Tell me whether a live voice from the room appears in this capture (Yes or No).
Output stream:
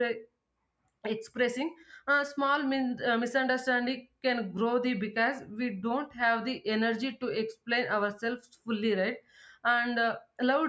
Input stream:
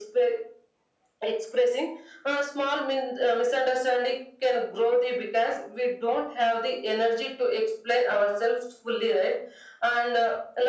No